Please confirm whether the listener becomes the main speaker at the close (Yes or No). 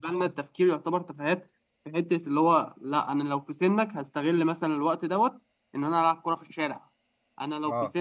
Yes